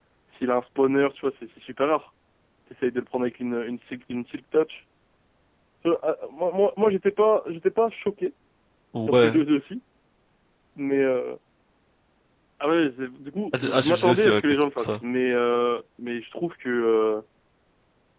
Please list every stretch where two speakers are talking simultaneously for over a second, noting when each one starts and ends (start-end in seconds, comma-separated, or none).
13.6-15.0